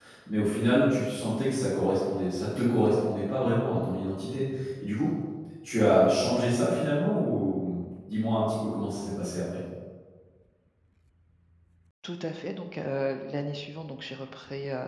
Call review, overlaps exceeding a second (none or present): none